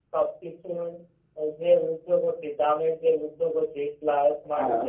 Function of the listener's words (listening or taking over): listening